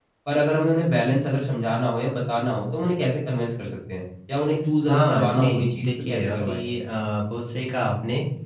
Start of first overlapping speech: 5 s

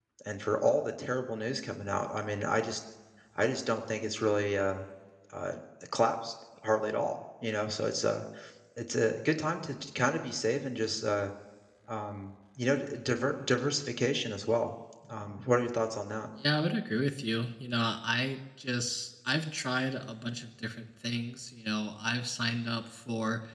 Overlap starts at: none

